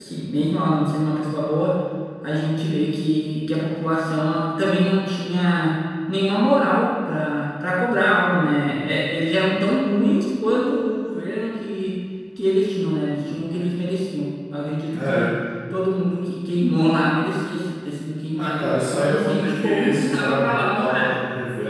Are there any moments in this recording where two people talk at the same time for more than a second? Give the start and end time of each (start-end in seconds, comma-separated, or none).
18.4-21.1